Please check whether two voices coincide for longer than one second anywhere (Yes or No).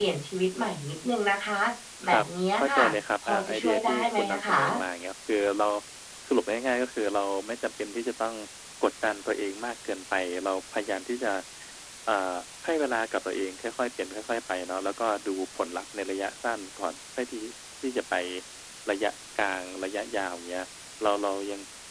Yes